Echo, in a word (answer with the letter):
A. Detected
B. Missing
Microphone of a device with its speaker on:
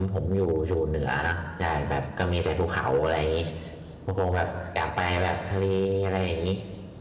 B